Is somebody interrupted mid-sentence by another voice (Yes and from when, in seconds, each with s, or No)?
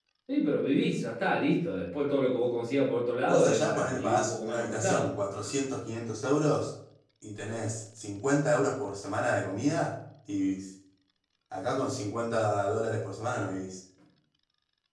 Yes, from 3.2 s